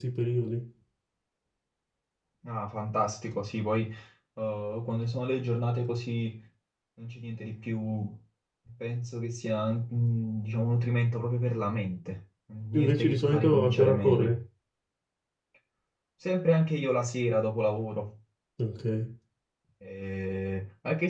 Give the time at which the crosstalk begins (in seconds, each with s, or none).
12.7 s